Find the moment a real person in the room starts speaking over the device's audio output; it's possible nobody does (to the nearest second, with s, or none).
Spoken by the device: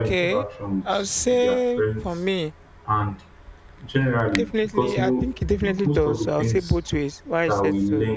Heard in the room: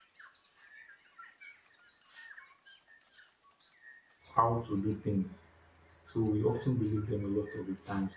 4 s